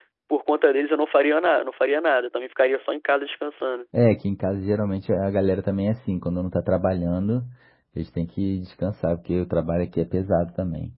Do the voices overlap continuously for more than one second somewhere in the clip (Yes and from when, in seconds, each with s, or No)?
No